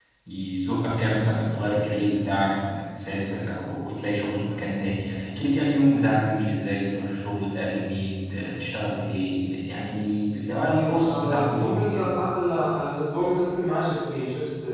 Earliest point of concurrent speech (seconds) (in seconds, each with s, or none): 10.6 s